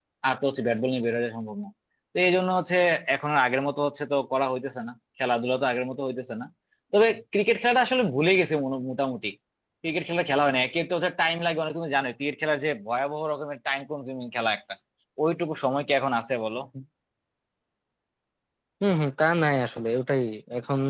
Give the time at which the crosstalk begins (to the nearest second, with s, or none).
none